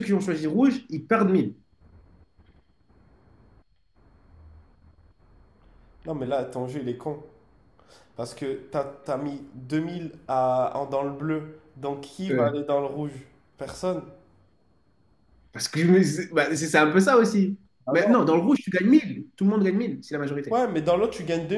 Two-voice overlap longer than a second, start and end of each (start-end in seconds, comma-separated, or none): none